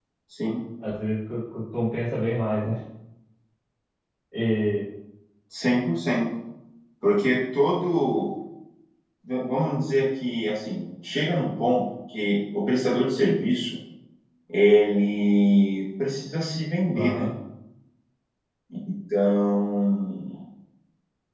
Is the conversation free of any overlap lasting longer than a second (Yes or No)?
Yes